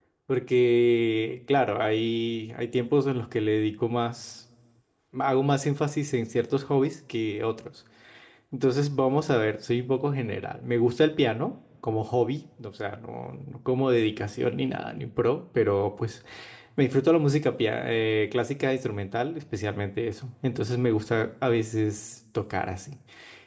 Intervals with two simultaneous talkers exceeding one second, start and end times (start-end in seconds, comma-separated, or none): none